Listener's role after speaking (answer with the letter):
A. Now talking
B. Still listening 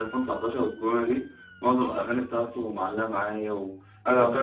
B